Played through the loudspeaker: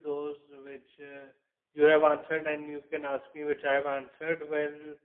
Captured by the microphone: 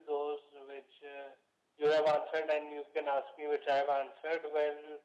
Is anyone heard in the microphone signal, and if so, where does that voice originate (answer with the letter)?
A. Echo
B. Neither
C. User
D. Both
A